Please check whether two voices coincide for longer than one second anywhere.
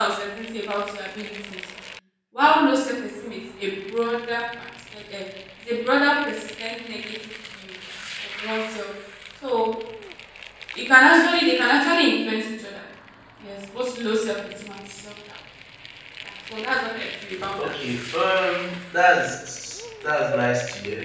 No

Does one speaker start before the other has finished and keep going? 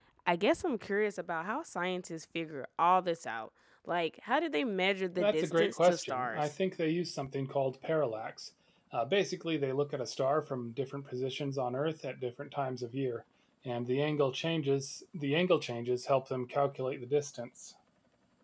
Yes, from 5.2 s

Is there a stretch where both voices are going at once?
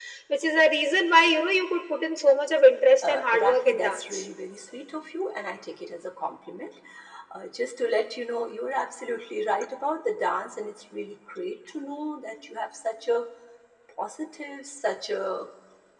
Yes, from 3.0 s

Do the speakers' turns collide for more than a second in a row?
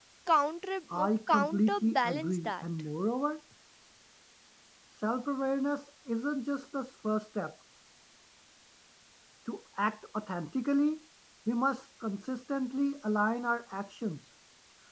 Yes, from 0.9 s

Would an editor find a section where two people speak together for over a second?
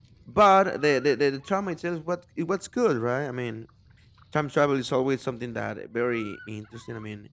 No

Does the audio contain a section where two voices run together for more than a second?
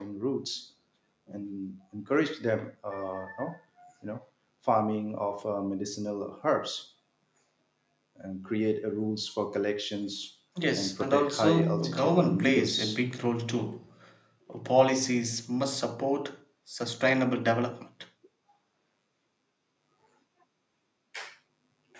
Yes, from 10.6 s

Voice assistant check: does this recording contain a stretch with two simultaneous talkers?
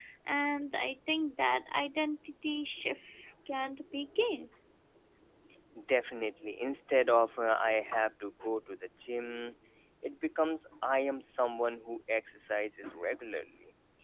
No

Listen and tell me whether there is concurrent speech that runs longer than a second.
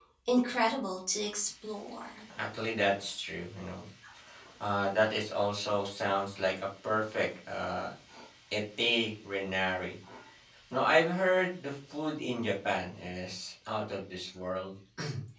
No

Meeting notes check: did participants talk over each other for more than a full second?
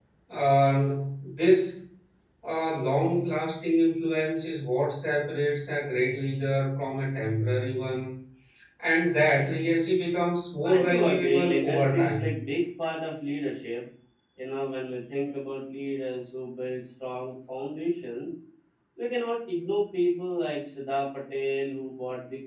Yes, from 10.6 s

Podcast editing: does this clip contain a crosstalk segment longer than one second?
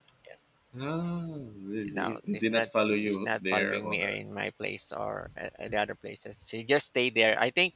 Yes, from 1.9 s

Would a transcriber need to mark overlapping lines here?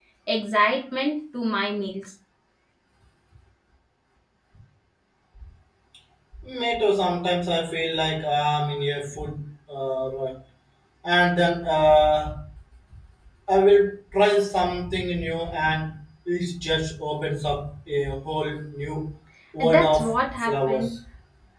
Yes, from 19.6 s

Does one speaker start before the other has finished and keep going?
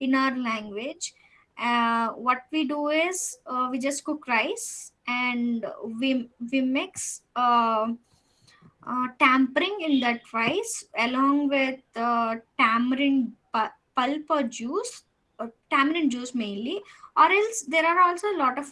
No

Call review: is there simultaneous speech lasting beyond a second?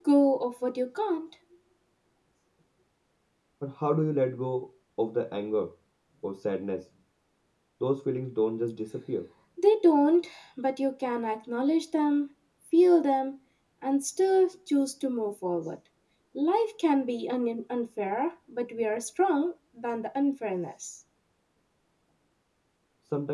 No

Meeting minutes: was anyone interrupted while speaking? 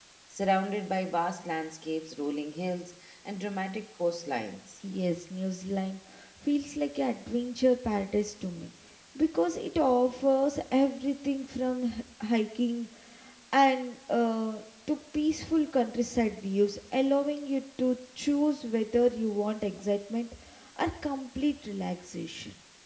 No

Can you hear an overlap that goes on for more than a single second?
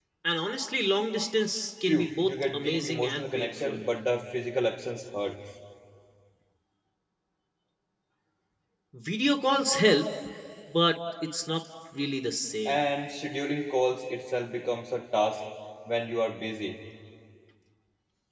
Yes, from 1.9 s

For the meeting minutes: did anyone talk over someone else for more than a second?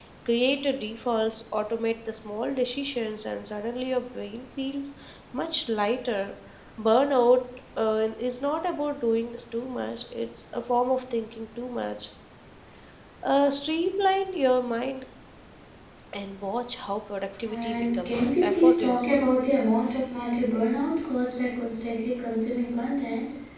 Yes, from 17.4 s

